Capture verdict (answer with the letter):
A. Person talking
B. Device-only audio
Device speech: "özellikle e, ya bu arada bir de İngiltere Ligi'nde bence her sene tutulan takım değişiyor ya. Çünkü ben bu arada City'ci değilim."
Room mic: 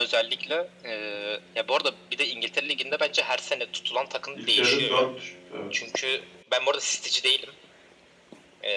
A